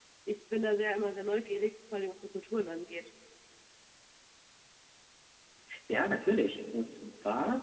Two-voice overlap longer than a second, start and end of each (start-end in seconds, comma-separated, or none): none